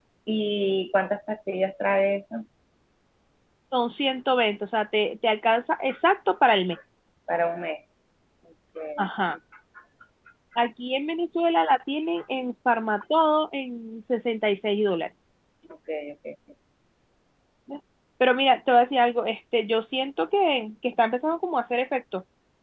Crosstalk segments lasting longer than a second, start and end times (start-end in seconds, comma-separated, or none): none